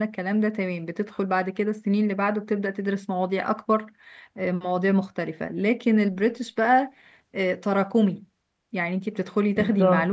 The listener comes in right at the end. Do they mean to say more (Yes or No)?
No